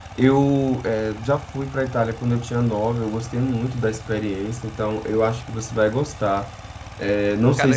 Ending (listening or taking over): listening